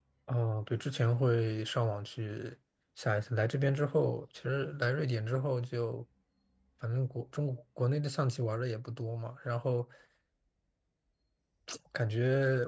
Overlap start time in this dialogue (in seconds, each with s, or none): none